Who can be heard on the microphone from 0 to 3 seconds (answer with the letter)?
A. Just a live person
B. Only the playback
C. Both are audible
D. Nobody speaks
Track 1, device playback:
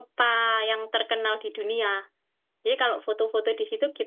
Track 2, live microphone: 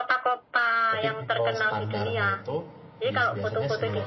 C